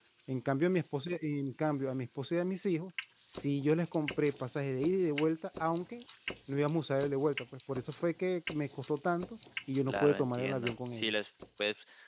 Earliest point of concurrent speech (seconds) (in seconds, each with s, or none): 9.9 s